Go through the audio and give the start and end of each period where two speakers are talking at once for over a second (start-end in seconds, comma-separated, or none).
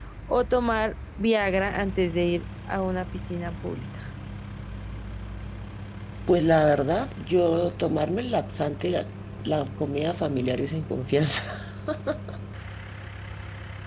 none